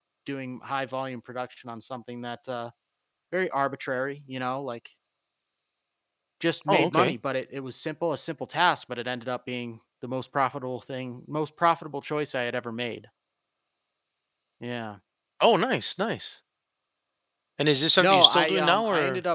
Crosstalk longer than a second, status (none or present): present